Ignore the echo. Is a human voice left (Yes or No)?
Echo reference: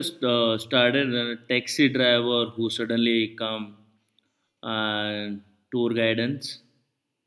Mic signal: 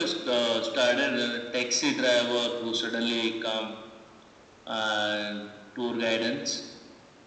No